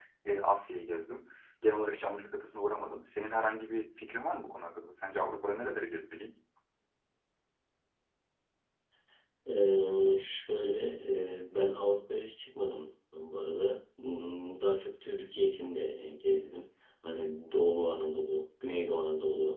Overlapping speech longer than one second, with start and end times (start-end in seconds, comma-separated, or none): none